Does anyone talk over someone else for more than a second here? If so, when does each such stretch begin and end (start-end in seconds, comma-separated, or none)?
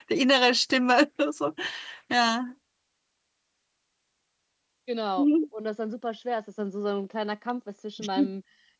none